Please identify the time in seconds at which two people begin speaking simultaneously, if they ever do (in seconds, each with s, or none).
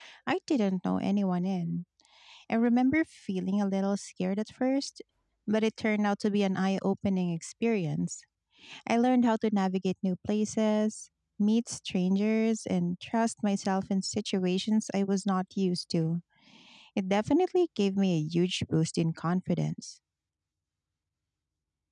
none